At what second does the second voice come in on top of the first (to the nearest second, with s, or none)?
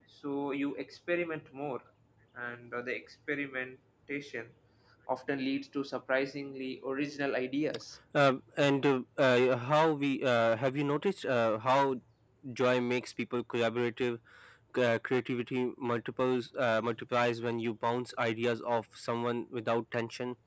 none